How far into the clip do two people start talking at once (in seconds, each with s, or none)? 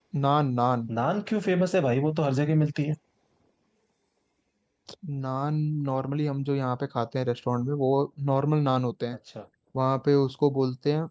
none